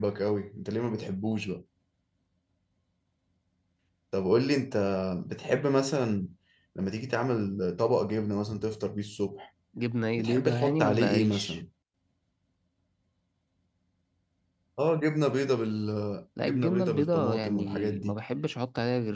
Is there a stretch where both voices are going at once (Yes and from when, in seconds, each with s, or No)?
Yes, from 10.2 s